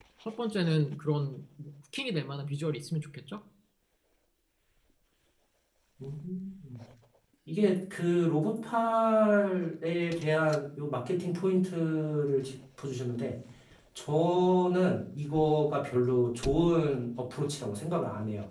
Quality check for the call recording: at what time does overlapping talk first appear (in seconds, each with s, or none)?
none